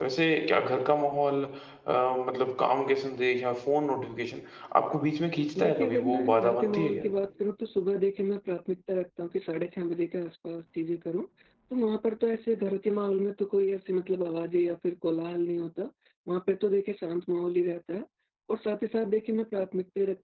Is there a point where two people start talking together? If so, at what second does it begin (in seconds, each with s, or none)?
5.5 s